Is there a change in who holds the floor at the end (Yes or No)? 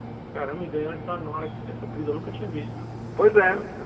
Yes